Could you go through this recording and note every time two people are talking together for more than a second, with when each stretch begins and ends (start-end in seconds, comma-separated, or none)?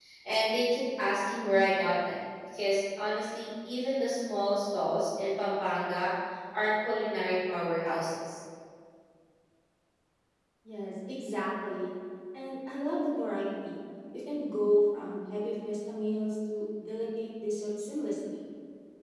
none